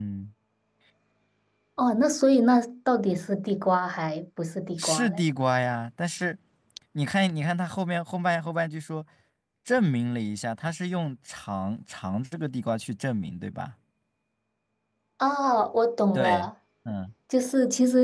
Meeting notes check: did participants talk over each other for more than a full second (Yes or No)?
No